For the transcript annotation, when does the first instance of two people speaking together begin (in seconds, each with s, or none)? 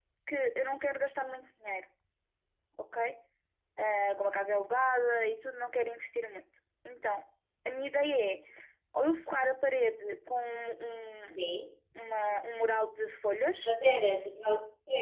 none